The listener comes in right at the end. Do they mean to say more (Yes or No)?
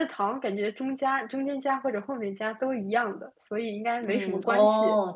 Yes